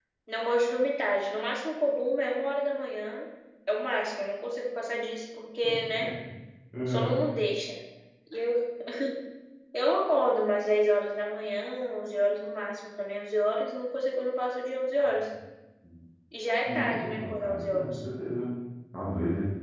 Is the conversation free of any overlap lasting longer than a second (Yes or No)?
No